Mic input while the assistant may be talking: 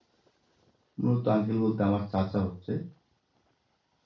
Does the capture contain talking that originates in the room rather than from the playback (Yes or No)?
Yes